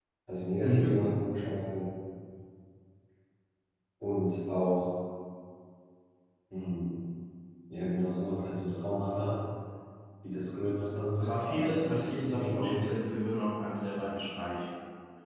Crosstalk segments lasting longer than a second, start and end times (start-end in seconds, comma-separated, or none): 11.2-12.9